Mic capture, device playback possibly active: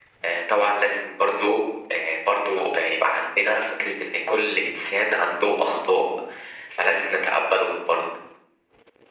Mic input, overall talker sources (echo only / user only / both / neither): echo only